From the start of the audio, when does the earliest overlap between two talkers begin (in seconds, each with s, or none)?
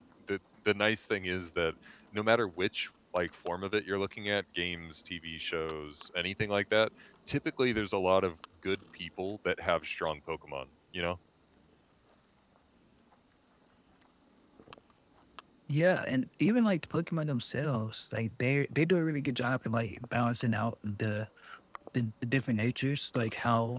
none